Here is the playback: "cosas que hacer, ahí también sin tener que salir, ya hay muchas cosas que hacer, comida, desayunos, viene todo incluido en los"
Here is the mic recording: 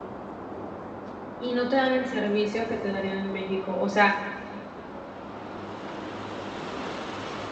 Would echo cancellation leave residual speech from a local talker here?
Yes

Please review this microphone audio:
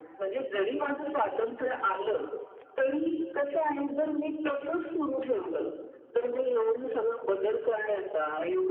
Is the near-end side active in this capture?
No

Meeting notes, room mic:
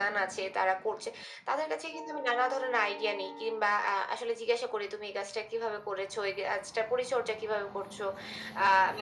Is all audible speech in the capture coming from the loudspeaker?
Yes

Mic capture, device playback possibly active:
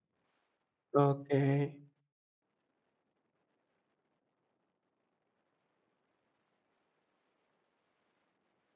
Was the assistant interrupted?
Yes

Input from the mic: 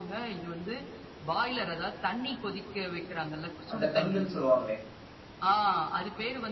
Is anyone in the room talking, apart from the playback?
Yes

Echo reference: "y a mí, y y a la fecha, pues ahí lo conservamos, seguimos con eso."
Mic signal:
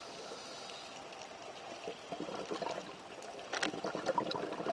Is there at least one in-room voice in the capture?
No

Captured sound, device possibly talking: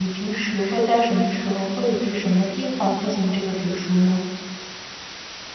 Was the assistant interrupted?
Yes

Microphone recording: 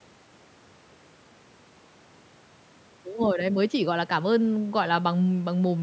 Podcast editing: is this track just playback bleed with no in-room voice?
No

